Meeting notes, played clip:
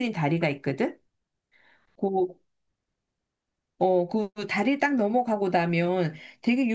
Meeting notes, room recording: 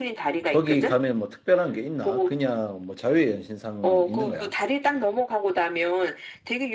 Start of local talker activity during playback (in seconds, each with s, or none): 0.5 s